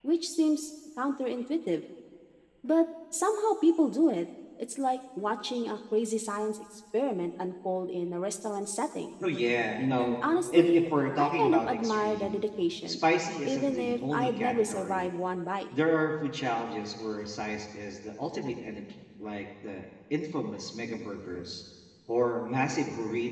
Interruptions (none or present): present